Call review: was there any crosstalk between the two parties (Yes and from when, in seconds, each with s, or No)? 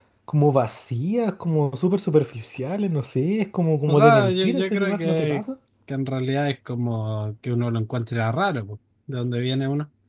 Yes, from 3.9 s